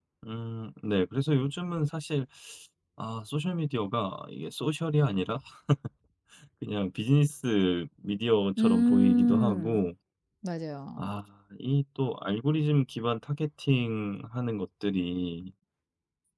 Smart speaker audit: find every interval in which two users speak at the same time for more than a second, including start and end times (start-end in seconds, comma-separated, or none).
8.6-9.8